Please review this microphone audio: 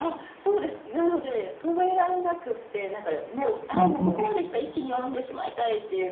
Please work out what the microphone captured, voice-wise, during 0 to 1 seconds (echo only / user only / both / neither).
echo only